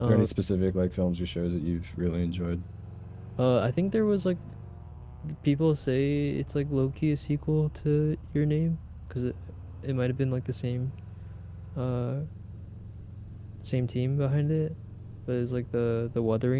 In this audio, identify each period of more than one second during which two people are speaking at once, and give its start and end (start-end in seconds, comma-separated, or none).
none